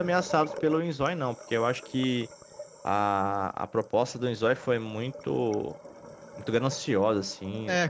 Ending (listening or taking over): taking over